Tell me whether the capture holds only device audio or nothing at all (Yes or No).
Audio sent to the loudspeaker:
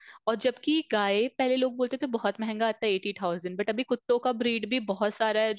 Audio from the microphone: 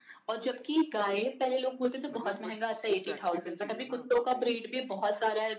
No